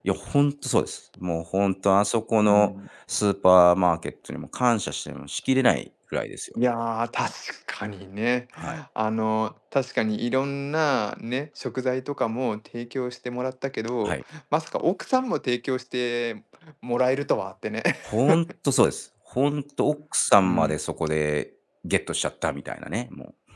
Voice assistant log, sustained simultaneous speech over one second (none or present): none